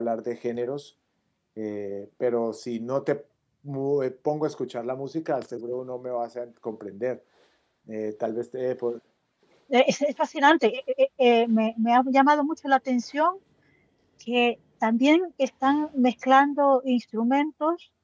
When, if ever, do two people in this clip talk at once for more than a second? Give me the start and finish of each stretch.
none

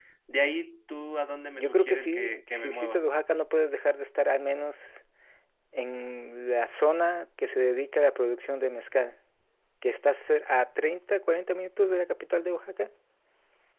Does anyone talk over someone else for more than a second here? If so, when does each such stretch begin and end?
1.6-3.0

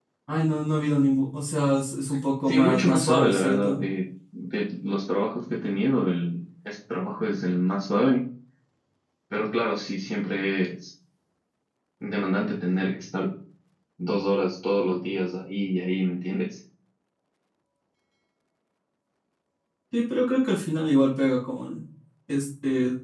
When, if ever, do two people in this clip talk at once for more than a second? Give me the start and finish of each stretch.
2.5-3.8

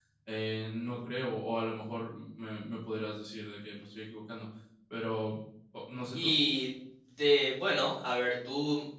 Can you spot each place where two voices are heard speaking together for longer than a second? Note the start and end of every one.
none

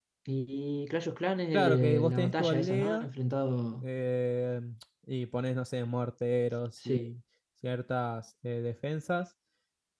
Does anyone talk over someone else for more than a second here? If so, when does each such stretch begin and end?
1.5-3.1

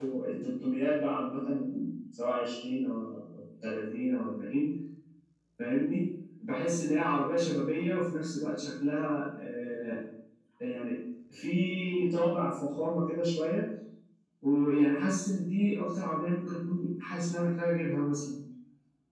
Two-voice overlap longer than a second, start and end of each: none

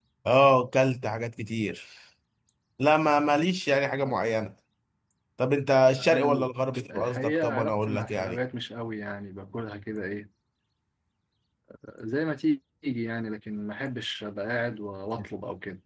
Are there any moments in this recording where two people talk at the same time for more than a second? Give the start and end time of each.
6.9-8.4

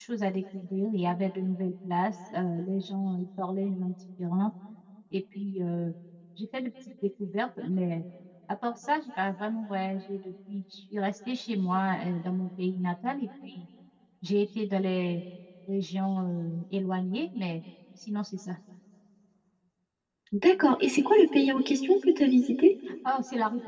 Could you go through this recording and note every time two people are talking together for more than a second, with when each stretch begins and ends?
none

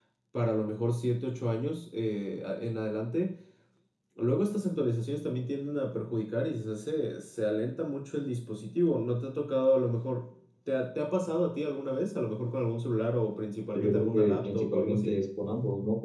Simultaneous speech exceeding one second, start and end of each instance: 13.7-15.2

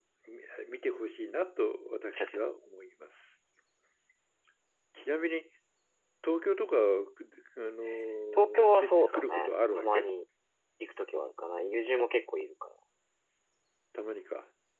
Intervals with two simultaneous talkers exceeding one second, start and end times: 8.3-10.1

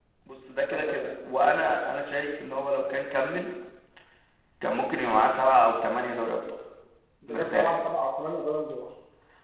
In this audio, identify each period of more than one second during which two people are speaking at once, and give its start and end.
none

